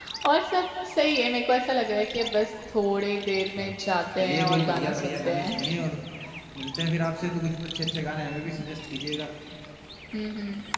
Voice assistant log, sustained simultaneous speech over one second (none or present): present